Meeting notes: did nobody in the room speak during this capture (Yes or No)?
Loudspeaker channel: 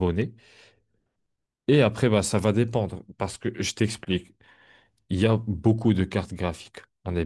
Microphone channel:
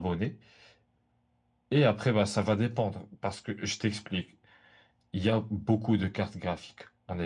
Yes